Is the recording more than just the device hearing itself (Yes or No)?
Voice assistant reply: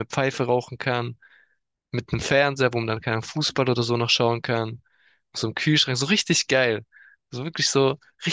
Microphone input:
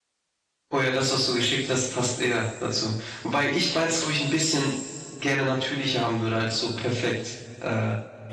Yes